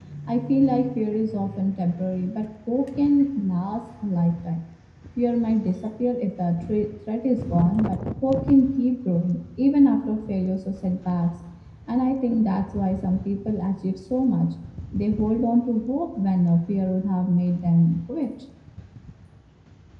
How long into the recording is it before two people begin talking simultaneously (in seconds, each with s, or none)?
none